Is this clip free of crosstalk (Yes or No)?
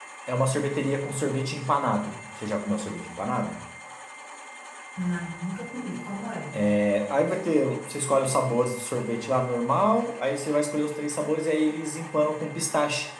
Yes